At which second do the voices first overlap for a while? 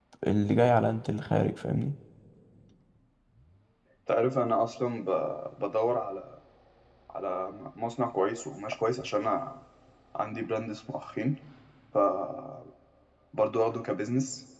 none

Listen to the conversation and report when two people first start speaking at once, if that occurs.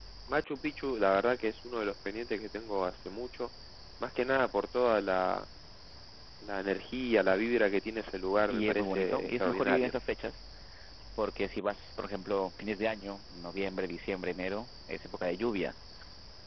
8.5 s

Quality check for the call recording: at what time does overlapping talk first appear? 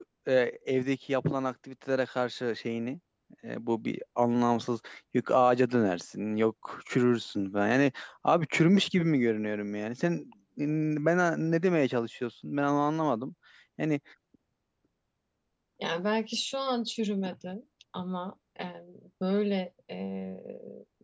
none

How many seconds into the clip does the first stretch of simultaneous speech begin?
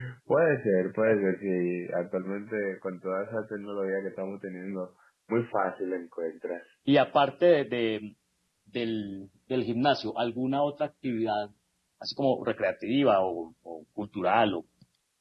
none

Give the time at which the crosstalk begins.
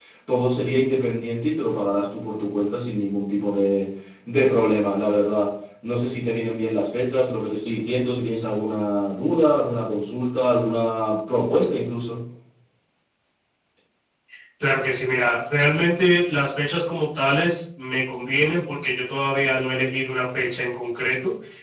none

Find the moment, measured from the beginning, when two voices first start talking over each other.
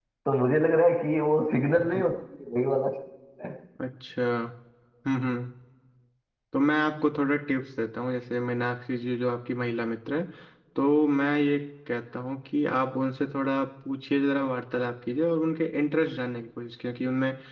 none

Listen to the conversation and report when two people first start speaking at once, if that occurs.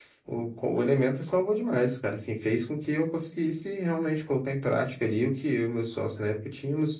none

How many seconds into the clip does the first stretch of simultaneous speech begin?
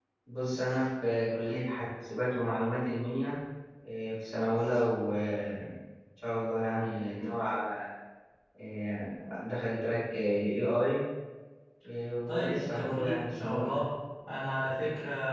12.3 s

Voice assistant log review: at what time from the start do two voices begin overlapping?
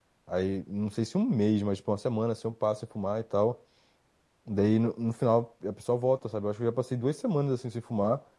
none

